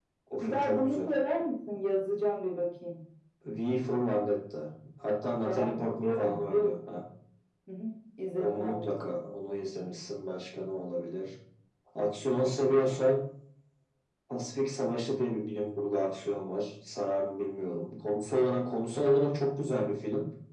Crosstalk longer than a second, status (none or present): present